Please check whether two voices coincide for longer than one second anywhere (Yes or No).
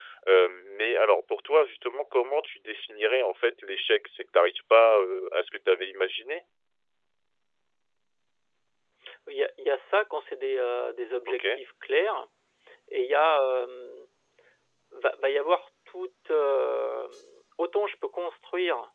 No